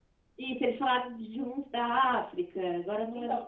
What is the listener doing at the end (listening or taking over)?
taking over